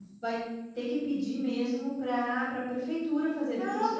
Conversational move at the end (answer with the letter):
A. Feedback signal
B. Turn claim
B